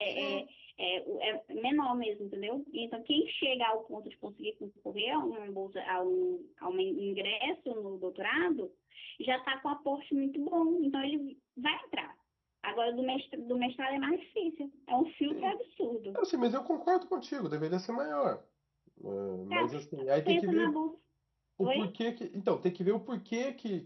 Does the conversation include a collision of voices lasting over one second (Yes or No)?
No